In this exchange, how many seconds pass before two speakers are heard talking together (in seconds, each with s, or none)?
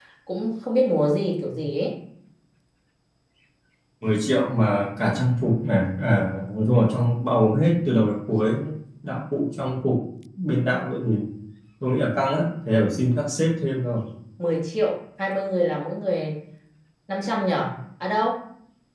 none